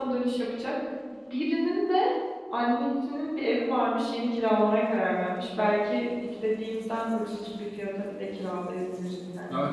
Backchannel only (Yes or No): No